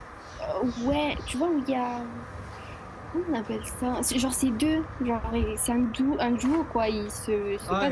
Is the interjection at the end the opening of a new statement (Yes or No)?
Yes